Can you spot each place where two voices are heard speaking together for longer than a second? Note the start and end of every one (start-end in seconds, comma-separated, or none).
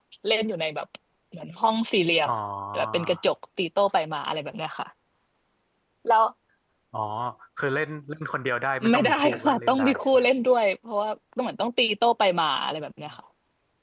8.9-10.2